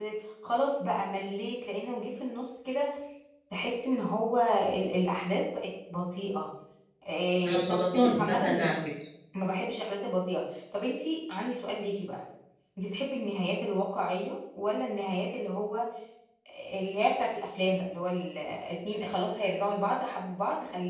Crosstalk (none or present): present